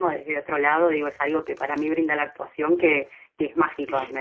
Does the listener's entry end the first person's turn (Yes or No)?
No